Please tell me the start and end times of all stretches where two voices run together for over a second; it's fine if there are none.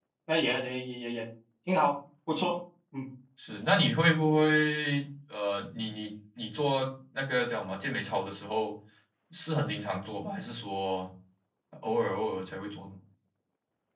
none

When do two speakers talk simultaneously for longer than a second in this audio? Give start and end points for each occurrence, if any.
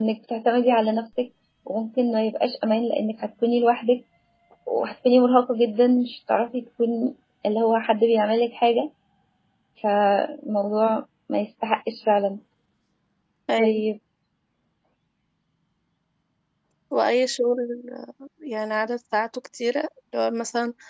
none

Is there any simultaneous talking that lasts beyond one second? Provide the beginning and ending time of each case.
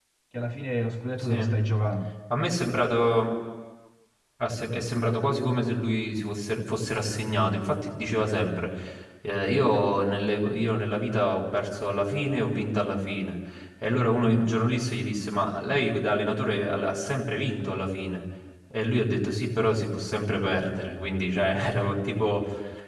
none

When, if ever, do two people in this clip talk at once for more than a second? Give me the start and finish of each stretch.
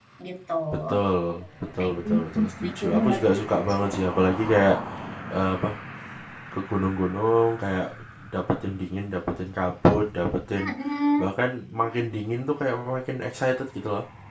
1.8-3.3

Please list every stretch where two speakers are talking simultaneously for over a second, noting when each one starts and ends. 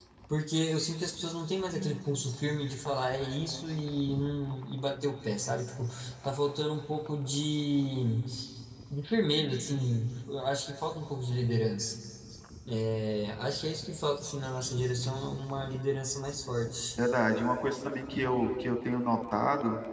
none

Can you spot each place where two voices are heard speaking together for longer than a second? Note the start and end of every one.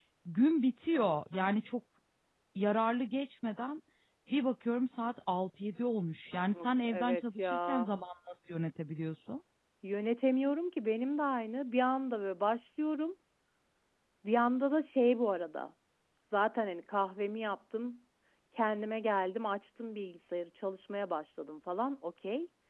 6.5-7.9

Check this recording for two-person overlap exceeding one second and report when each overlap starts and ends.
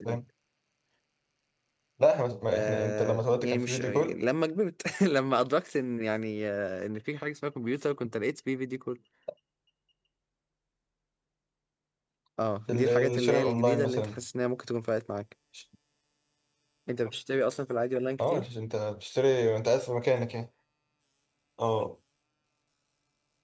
2.5-4.2, 12.7-14.2

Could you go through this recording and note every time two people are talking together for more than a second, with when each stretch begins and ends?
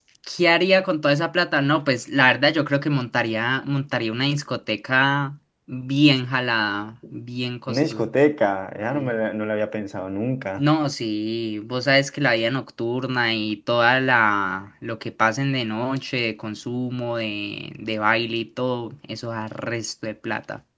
none

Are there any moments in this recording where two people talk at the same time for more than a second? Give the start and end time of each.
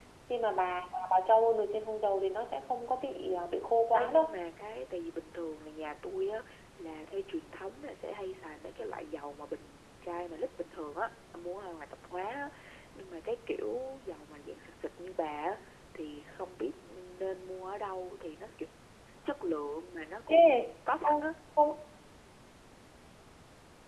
none

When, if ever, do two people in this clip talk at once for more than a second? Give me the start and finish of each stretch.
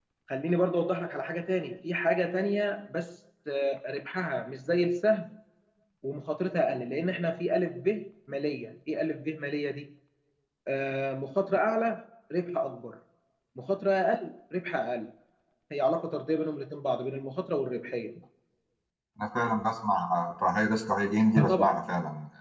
none

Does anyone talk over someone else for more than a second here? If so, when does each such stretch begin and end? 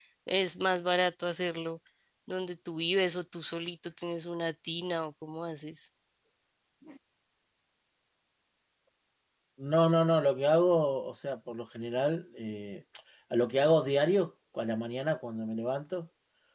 none

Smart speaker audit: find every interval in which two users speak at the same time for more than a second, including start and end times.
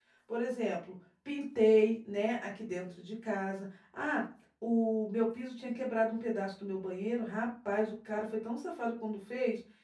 none

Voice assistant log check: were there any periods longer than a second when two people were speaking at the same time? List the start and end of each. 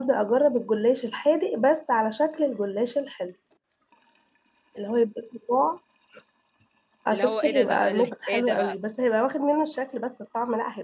7.1-8.8

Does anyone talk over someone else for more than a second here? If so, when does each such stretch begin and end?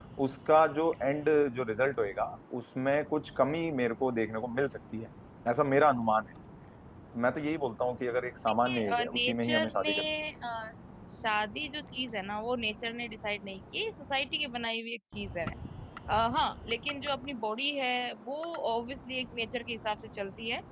8.7-9.9

